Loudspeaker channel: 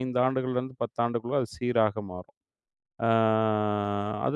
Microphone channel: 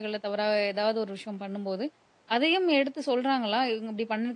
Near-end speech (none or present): present